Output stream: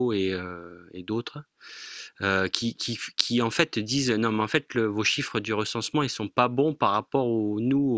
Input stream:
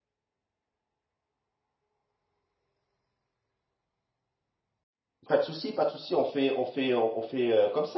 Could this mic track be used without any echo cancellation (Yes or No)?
Yes